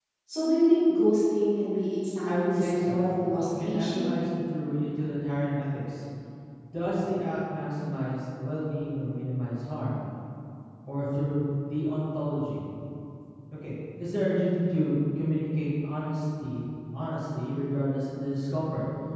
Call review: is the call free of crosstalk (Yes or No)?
No